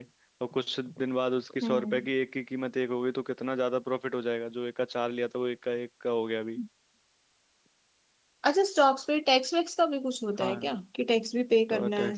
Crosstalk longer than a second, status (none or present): none